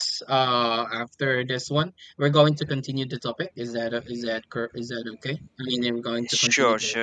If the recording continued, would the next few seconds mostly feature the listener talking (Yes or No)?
Yes